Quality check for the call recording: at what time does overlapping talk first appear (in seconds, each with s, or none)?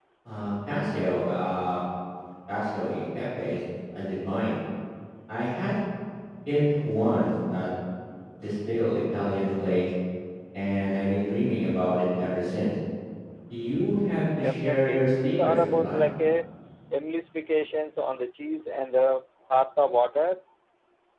14.4 s